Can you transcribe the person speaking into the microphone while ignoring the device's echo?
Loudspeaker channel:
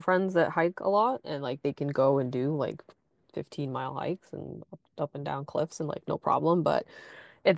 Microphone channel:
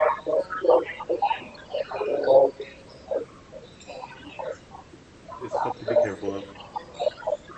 it's stuff to be careful of.

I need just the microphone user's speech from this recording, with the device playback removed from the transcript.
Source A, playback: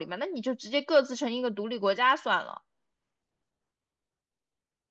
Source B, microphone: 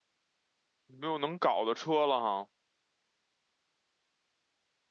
没有能搞的车了哈。

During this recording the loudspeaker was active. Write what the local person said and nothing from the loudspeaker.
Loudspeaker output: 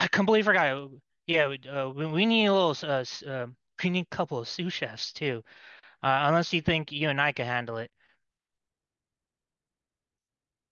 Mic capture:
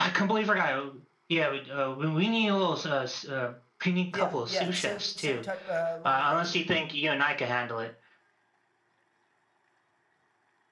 yeah yeah same same type uh, line of thinking

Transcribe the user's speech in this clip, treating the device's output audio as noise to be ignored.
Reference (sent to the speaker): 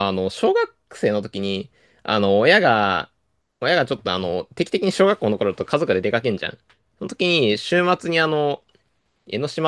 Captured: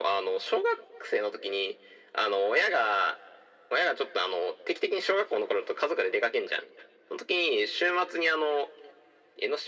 none

